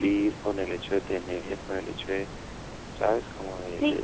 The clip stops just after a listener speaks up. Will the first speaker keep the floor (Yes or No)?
No